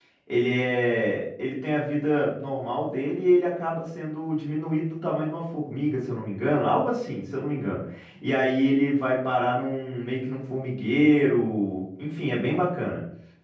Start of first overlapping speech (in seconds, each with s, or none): none